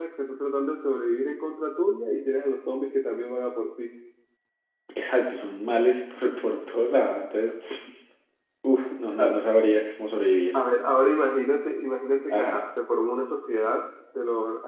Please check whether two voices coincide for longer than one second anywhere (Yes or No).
No